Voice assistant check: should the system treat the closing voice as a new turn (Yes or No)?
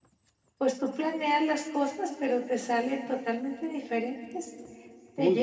No